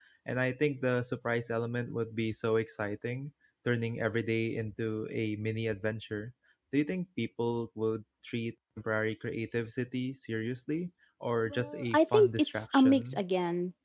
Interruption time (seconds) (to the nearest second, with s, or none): 12 s